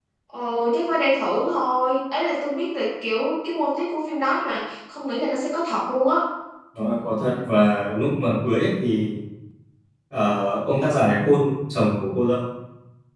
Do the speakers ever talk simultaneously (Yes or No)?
No